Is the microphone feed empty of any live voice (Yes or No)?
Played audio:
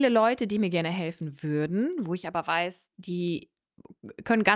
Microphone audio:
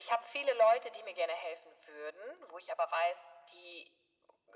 Yes